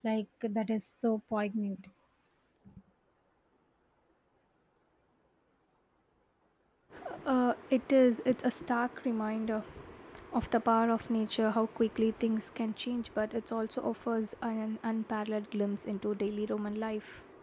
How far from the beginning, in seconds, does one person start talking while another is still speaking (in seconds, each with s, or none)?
none